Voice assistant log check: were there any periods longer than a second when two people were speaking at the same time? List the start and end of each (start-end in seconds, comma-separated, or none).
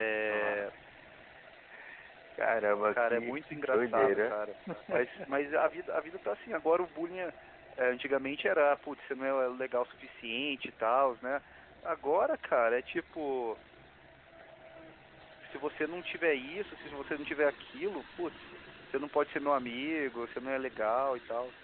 2.9-4.4